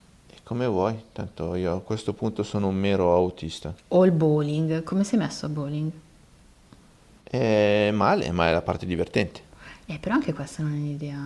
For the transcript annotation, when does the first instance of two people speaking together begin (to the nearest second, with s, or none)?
none